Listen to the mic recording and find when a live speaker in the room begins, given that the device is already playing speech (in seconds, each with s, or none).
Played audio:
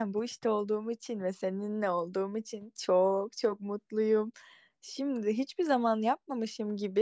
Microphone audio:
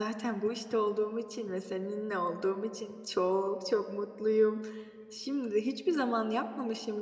none